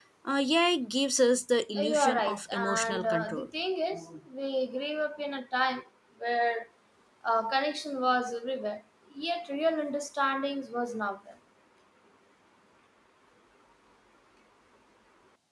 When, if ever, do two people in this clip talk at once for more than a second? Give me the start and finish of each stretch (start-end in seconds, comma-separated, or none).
1.8-3.5